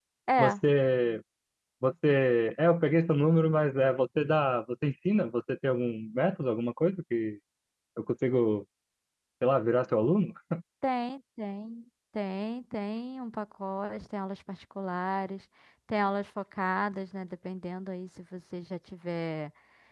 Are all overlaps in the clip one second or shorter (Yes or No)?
Yes